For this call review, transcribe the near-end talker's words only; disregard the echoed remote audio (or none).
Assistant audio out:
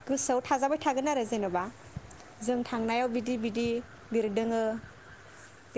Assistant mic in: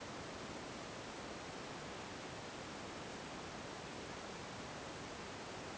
none